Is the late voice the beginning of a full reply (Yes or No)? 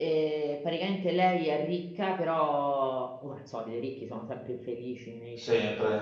No